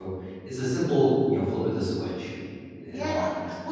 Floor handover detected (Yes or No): Yes